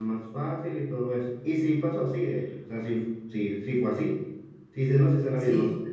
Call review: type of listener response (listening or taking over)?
listening